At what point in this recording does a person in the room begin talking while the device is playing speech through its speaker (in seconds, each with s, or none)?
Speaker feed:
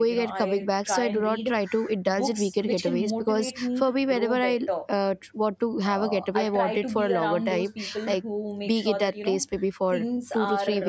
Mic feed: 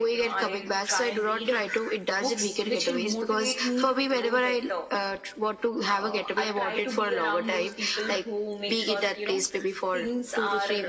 none